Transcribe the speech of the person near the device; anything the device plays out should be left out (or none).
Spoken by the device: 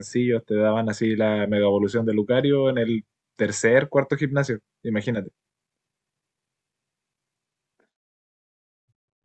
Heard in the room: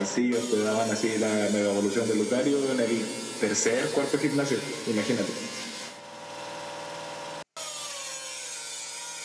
none